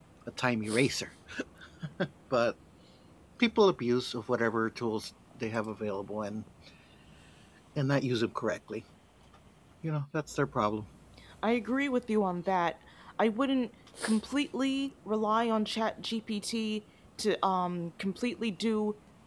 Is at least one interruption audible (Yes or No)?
No